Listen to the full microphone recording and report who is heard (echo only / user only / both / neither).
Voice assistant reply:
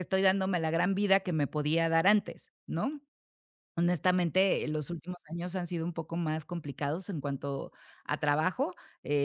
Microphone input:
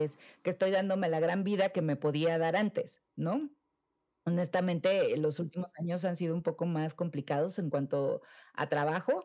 echo only